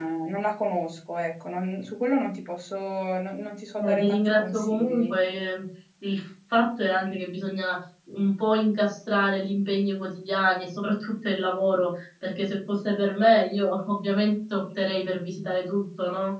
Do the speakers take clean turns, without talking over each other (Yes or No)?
No